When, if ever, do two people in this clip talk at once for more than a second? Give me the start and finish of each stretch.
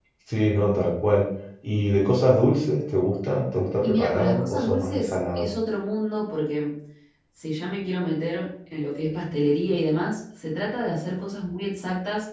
3.8-5.5

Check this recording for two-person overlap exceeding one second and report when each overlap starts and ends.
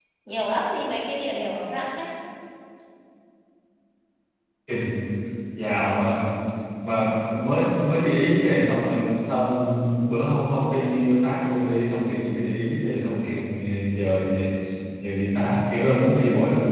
none

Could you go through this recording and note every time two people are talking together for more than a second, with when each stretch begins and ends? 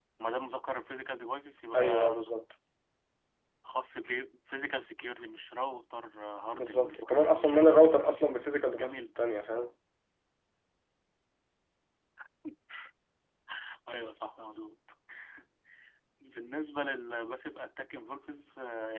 6.5-8.0

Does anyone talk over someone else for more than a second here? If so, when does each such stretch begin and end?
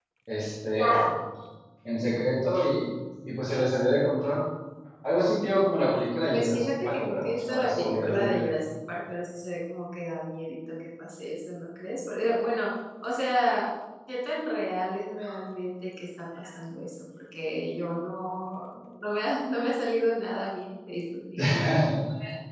6.3-8.4

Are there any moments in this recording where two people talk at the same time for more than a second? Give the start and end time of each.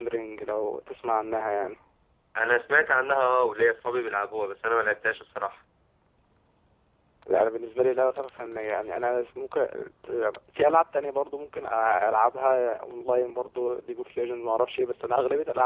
none

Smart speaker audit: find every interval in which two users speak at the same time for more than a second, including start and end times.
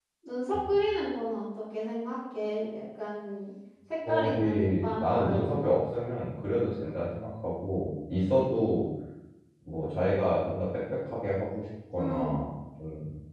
4.1-5.8

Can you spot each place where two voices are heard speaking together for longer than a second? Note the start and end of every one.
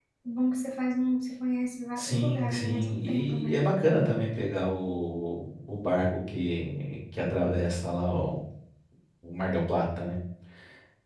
2.0-3.7

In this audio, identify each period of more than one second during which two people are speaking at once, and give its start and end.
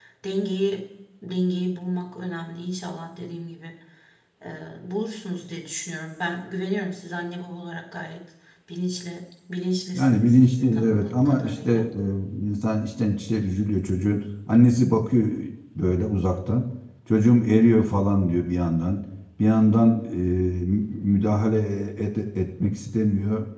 9.9-11.7

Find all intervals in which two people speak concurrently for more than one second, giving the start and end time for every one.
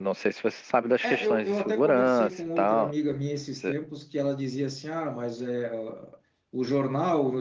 1.0-2.9

